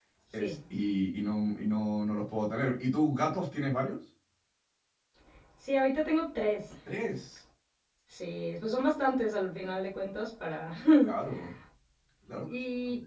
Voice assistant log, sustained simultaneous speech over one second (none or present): none